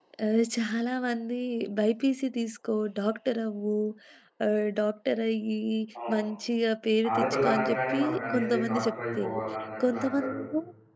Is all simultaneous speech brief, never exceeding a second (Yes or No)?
No